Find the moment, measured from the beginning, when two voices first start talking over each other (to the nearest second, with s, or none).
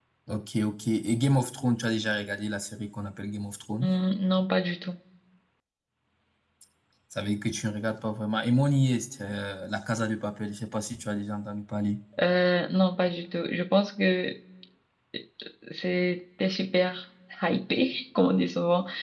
none